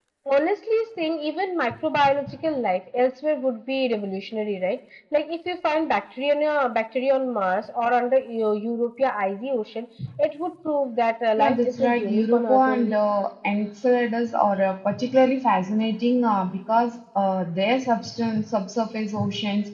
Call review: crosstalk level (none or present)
present